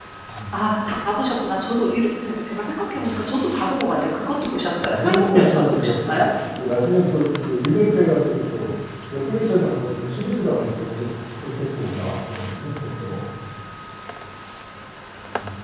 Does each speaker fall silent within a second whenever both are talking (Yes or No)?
No